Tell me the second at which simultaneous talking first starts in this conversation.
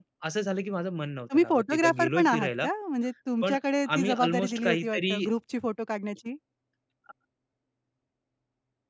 1.3 s

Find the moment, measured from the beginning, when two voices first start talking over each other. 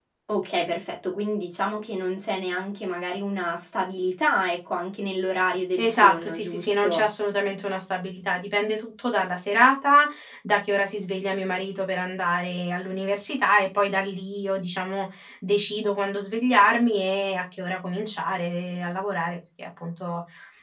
5.8 s

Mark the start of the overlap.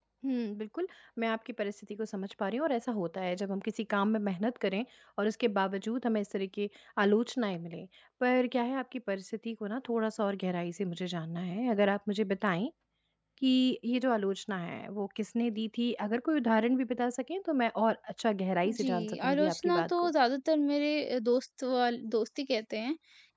18.6 s

